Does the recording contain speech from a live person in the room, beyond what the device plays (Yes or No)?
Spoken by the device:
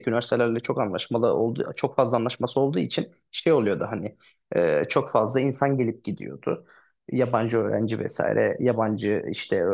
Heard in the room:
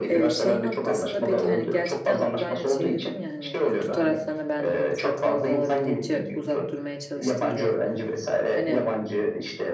Yes